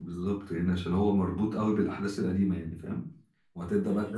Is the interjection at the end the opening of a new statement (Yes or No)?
No